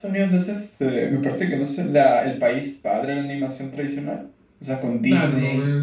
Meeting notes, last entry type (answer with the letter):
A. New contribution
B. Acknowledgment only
A